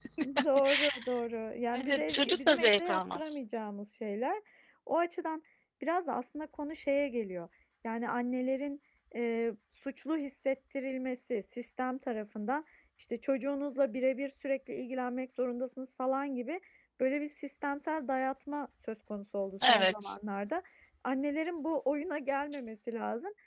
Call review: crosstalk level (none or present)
present